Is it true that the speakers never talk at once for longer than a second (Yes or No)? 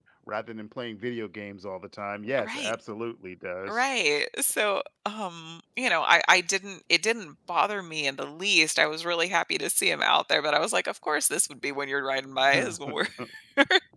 Yes